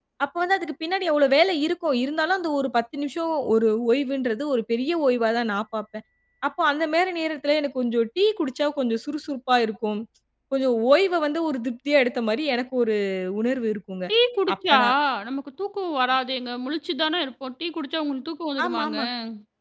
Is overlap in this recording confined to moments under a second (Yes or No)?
Yes